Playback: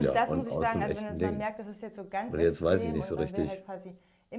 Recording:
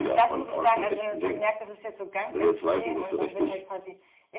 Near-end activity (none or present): none